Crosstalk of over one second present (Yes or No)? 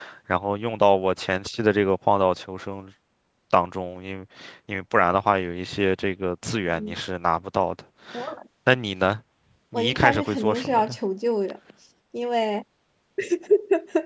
Yes